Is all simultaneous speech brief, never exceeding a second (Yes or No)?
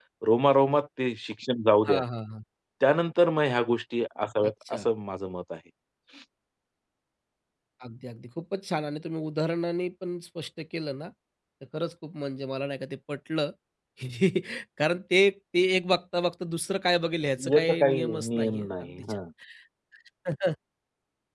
No